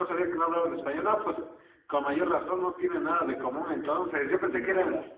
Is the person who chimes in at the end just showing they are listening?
Yes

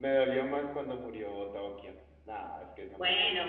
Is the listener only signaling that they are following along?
No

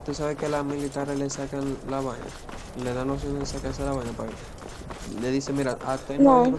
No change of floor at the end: Yes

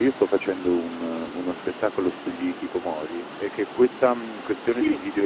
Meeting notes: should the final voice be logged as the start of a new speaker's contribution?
No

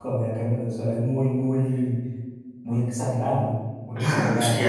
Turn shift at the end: Yes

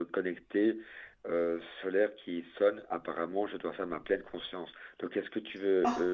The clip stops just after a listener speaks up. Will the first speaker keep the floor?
Yes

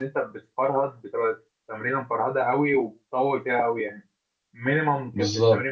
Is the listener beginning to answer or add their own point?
No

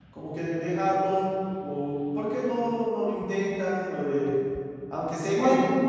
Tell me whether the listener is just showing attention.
Yes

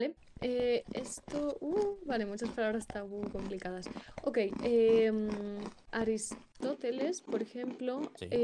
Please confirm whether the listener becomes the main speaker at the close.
No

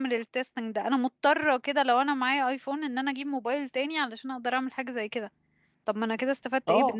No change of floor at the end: No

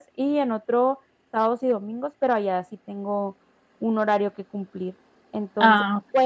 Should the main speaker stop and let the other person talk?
No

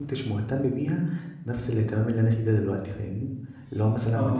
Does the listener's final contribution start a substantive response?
No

